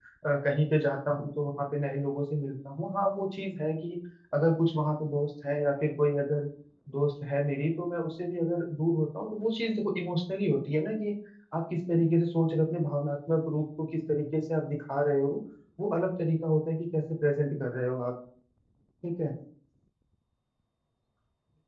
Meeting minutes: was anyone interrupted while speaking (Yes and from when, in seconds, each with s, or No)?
No